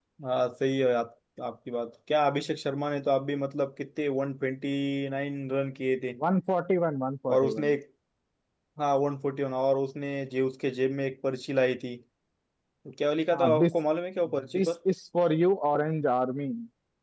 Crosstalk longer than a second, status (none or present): none